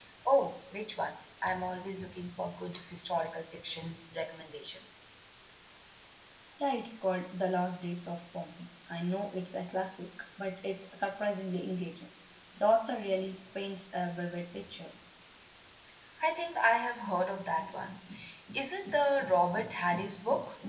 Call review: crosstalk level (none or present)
none